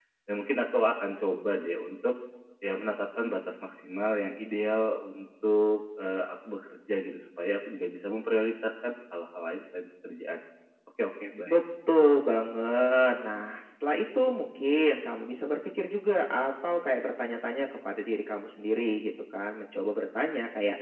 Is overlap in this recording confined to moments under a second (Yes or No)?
Yes